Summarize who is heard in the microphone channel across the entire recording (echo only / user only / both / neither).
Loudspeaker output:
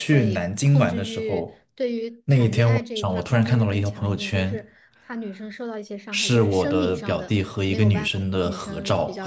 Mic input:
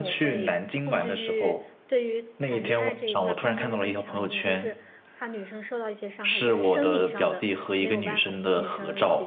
echo only